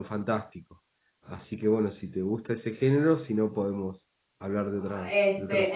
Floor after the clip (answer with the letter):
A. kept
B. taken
B